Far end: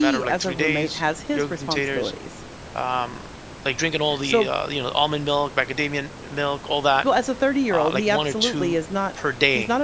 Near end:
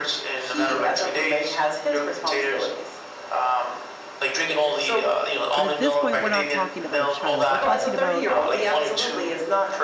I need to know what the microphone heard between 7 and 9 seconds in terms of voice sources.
both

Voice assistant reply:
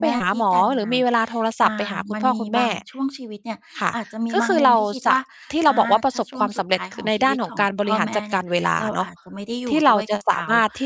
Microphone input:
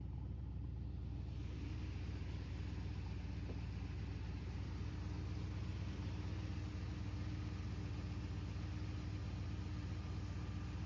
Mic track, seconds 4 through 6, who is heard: neither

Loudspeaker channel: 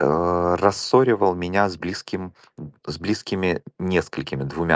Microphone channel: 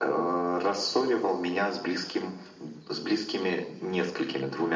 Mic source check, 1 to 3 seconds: echo only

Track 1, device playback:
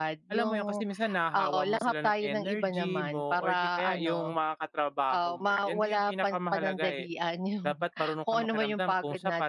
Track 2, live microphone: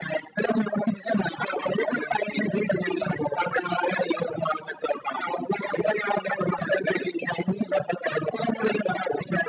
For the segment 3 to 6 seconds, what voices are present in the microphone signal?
echo only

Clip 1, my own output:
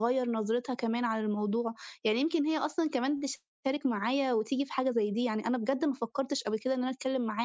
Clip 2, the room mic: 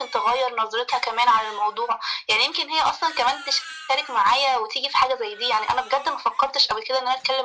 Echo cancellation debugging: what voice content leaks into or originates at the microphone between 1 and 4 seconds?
echo only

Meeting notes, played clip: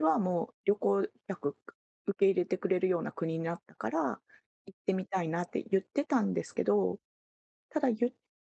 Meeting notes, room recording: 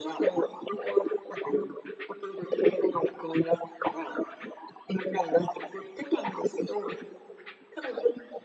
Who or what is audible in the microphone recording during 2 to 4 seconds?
echo only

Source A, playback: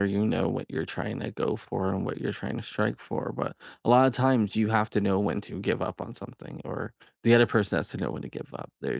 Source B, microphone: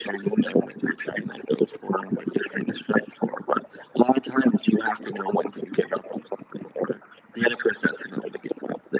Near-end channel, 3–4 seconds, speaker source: echo only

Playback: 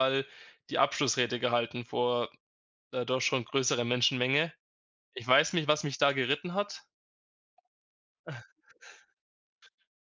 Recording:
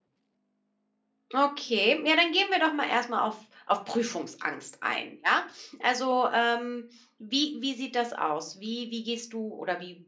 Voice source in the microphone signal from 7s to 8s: user only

